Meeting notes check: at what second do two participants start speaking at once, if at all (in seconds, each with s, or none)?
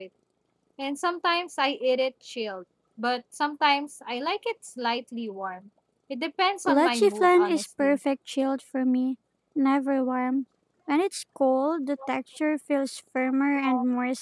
6.7 s